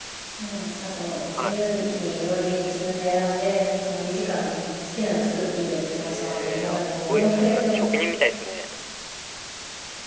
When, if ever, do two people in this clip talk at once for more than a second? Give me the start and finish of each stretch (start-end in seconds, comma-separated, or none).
5.9-7.8